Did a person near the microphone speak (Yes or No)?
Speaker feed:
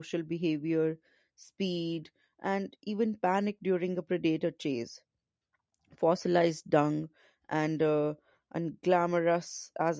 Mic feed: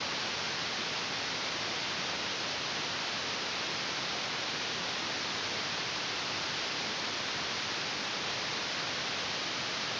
No